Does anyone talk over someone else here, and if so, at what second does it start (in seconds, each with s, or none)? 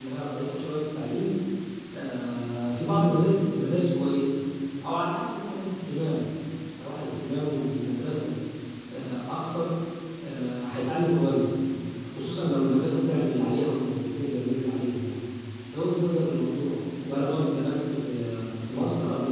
none